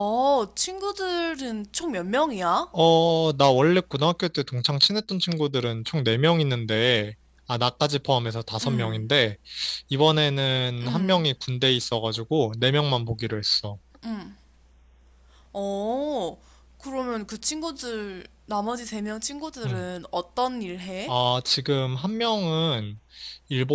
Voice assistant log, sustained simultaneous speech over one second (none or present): none